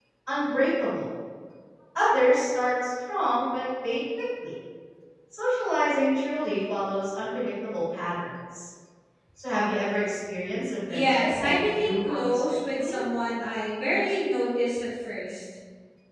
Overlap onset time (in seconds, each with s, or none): 10.9 s